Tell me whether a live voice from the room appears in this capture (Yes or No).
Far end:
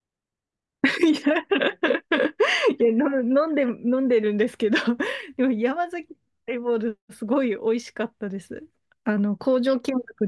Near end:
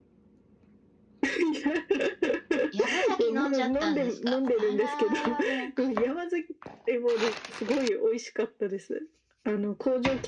Yes